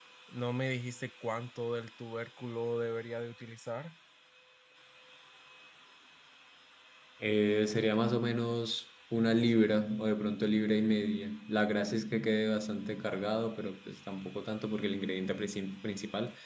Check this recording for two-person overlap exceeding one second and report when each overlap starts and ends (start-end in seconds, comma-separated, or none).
none